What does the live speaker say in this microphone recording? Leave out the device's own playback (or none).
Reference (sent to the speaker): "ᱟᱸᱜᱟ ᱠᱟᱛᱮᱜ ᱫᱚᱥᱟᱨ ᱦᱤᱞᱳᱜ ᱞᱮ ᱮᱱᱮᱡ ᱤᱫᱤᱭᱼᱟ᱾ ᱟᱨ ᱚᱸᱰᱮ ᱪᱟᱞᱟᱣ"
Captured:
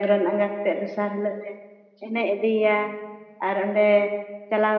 none